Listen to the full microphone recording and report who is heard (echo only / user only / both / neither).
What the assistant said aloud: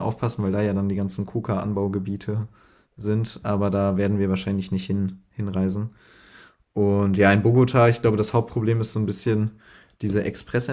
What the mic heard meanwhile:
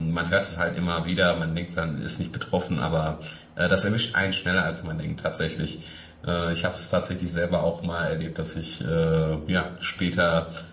user only